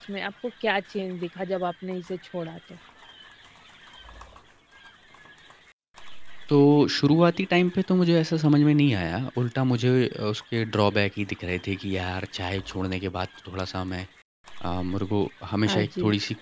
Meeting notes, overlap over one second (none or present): none